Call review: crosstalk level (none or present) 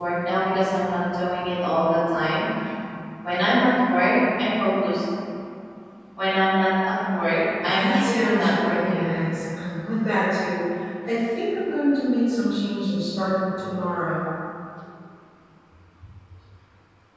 present